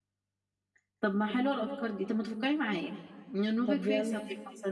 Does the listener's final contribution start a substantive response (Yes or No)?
No